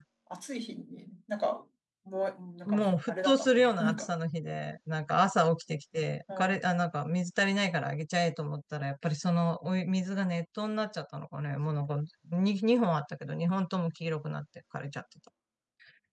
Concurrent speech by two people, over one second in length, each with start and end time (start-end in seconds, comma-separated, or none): 2.7-4.1